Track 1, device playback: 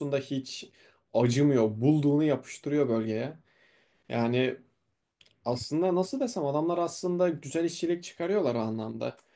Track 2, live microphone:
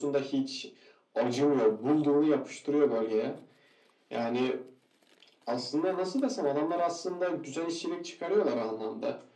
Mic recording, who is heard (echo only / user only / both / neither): echo only